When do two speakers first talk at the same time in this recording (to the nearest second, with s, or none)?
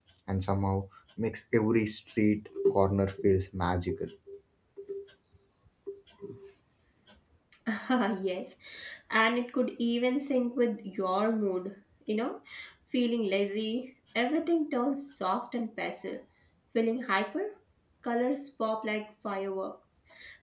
none